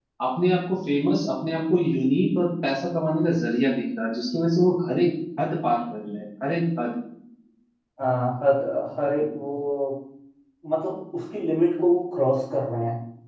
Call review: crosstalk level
none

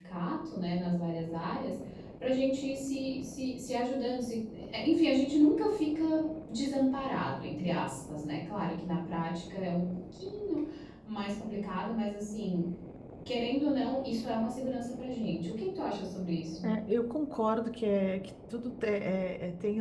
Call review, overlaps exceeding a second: none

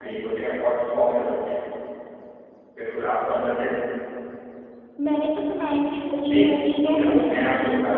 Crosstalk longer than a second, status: present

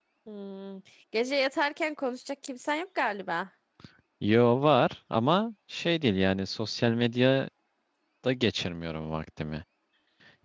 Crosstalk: none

